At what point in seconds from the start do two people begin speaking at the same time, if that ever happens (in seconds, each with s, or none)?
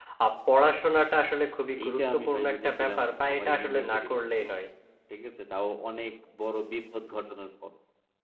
1.8 s